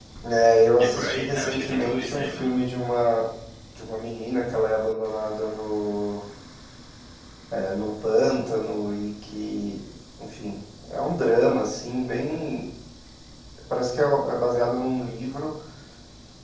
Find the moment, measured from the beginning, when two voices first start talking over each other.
0.8 s

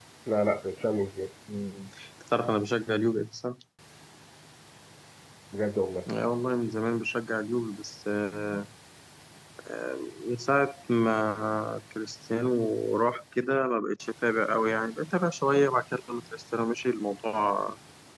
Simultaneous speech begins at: none

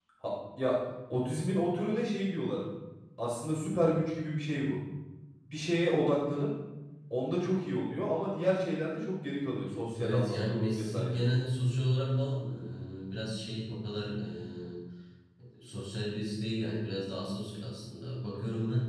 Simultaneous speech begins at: 10.0 s

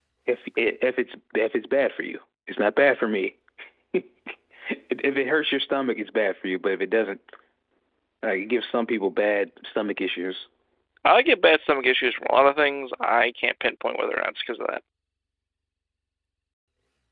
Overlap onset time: none

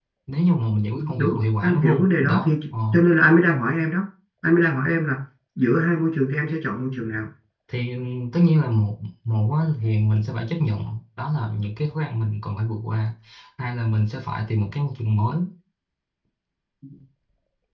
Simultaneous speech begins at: 1.2 s

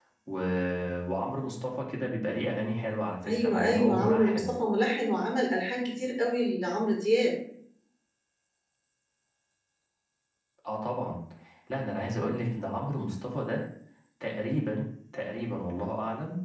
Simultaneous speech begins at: 3.2 s

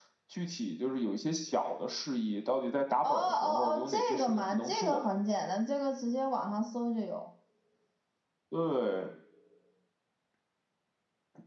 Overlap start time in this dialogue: 3.0 s

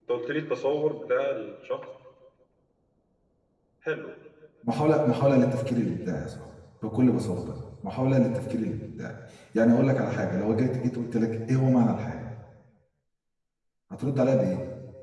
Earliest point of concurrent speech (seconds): none

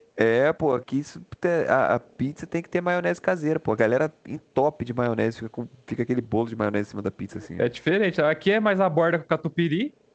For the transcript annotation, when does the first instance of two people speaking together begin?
none

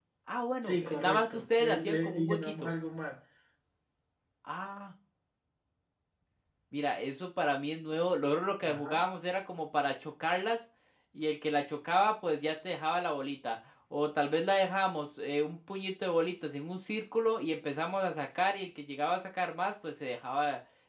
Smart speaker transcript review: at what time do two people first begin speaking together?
0.6 s

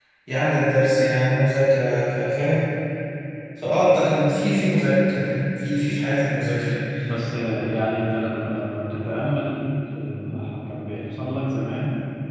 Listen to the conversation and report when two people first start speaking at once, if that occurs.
none

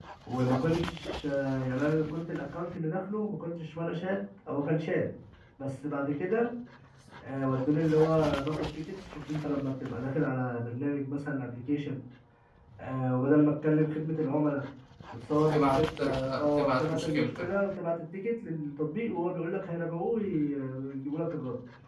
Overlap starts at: 15.5 s

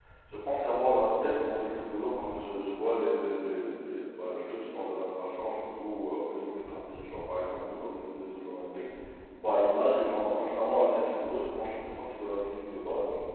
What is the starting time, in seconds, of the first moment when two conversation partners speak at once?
none

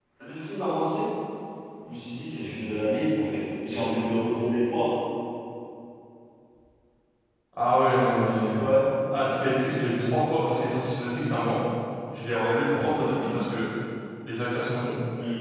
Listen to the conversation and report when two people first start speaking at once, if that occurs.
none

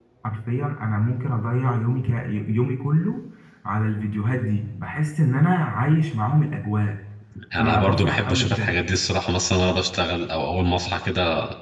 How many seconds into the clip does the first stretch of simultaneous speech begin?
7.6 s

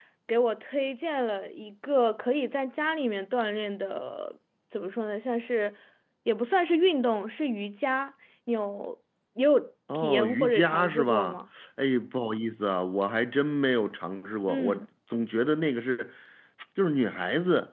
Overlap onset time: 9.9 s

